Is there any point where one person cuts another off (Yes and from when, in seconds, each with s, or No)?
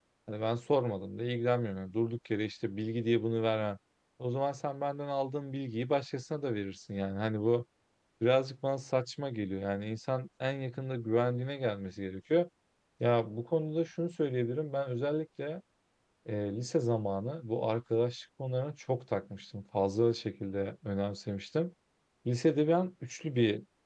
No